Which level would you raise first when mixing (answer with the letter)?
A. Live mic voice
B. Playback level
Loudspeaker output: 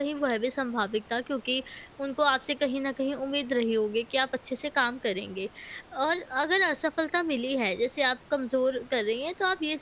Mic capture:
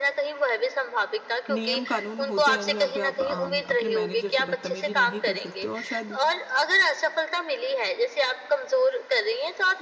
A